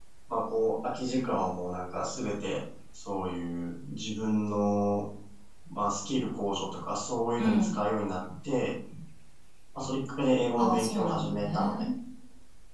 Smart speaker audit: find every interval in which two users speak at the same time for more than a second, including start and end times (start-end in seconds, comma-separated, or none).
10.6-11.9